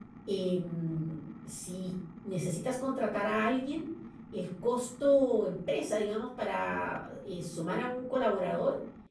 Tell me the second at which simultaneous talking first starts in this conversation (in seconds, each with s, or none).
none